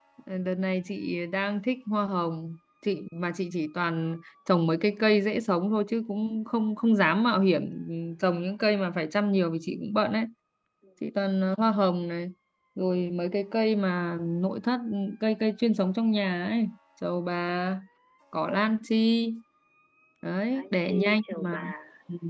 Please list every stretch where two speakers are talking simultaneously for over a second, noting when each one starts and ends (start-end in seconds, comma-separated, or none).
20.5-21.7